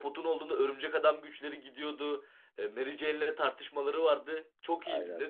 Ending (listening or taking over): taking over